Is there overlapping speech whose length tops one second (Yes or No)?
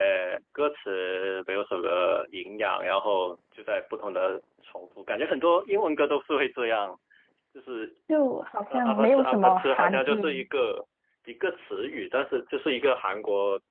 Yes